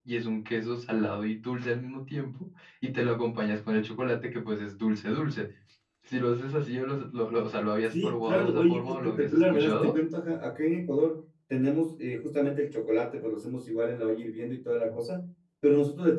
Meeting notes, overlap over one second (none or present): present